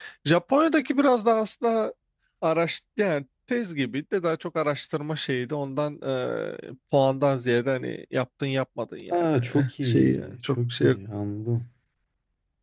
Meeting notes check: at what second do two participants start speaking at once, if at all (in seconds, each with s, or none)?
9.1 s